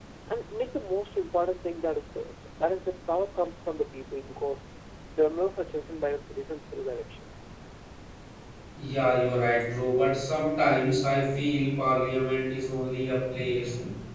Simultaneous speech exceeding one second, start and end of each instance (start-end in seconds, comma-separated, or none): none